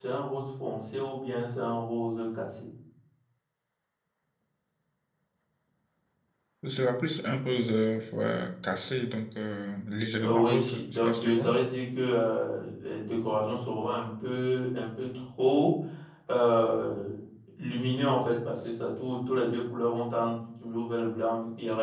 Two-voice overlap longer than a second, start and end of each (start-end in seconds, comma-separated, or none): 10.2-11.5